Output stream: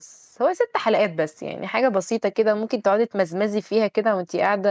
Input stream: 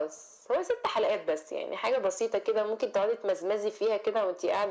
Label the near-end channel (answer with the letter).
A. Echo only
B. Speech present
A